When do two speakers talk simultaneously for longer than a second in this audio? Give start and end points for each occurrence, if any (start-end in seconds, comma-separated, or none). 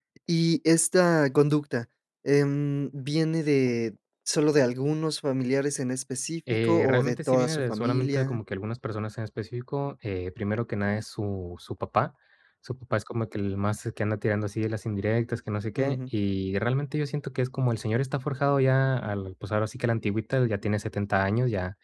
6.6-8.4